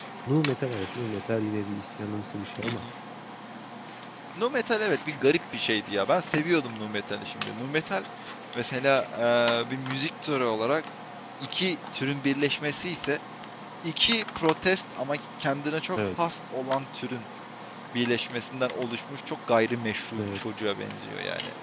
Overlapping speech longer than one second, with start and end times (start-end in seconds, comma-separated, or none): none